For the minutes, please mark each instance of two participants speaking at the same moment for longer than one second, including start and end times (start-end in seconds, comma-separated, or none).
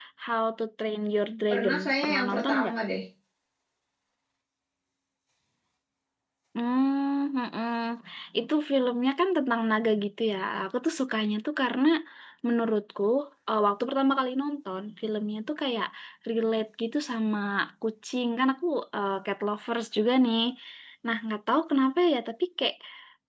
1.5-2.7